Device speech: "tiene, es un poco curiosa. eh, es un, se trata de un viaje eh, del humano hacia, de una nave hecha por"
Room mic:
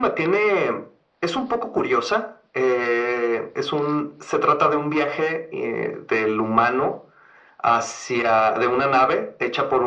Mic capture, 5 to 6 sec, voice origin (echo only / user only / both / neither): echo only